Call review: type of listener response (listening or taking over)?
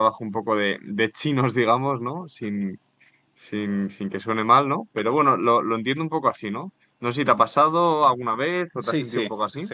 taking over